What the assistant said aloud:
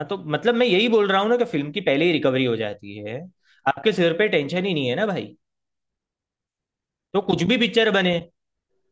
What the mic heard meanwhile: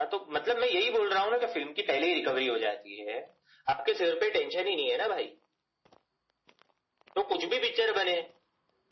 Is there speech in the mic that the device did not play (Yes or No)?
No